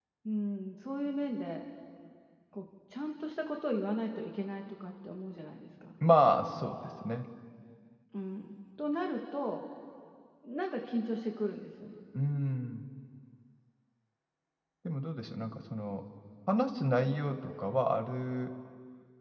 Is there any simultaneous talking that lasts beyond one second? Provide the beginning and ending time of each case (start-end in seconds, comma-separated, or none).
none